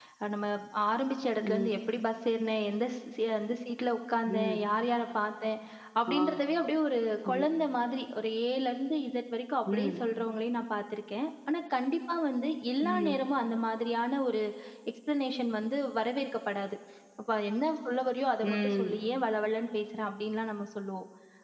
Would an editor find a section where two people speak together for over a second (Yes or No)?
No